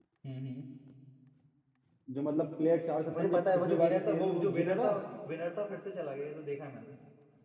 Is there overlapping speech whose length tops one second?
Yes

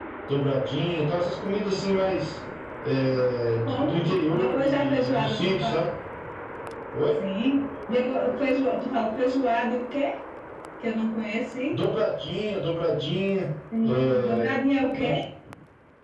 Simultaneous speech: Yes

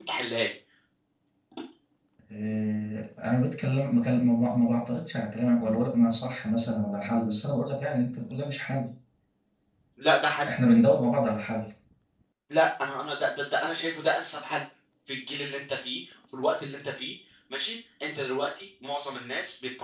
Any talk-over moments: No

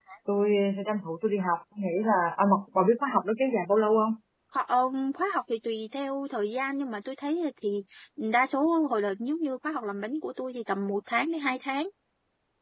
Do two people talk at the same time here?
No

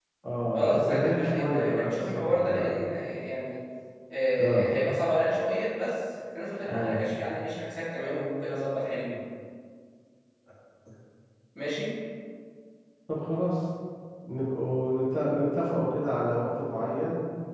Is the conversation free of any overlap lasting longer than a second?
No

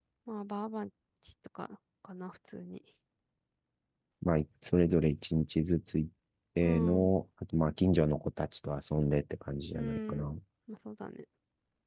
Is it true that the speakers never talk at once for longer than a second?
Yes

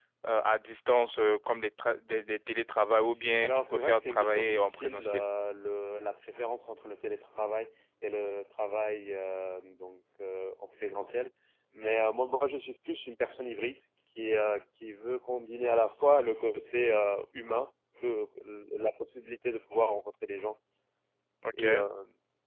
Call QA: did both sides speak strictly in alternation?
No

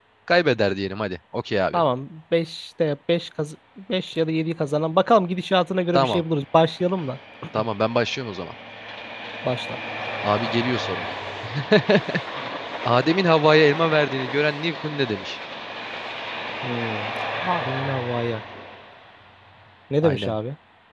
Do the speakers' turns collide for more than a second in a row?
No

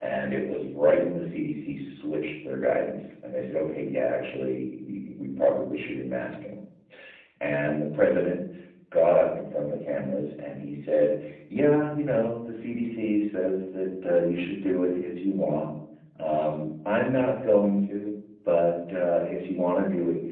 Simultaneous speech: No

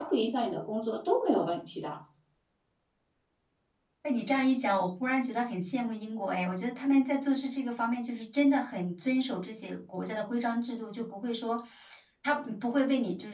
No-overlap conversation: Yes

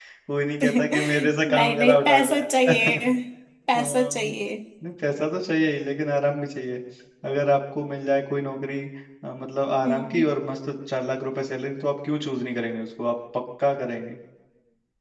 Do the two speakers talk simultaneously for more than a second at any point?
Yes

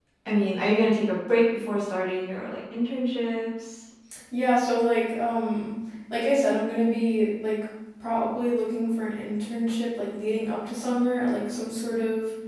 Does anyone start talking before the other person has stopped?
No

